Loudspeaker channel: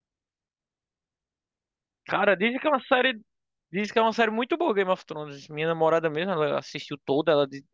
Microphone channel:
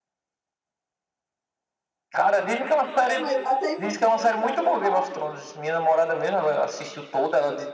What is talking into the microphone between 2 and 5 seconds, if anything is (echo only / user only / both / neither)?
both